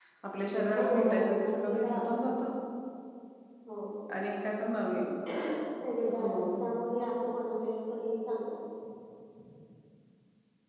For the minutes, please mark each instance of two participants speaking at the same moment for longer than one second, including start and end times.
0.8-2.5

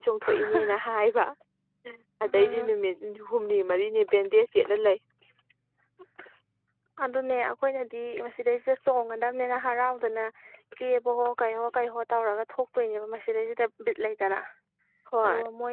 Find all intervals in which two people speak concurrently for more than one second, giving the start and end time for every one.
none

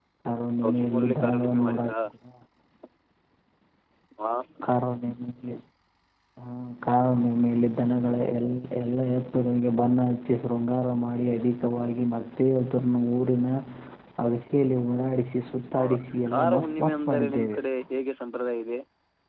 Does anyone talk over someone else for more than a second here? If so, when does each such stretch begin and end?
0.6-1.9, 15.8-17.6

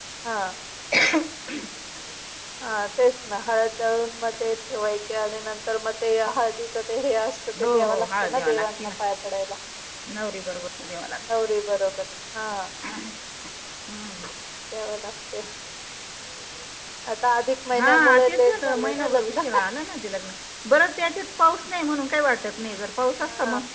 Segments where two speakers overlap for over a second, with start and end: 7.6-8.9, 17.8-19.4

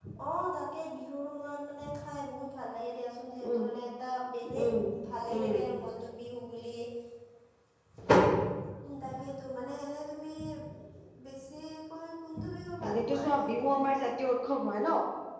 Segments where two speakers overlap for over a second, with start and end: 12.8-14.1

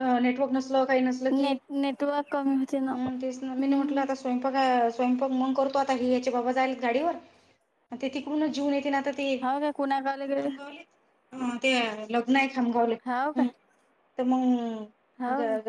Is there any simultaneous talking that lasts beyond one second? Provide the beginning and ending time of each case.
none

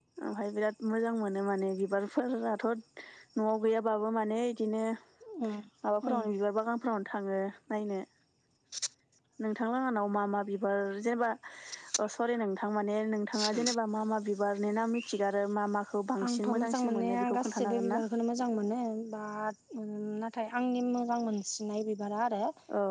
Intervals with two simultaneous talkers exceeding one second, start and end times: 16.2-18.0

